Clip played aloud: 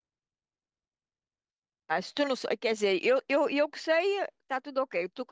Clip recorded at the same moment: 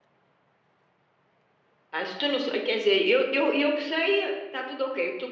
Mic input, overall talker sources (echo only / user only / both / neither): echo only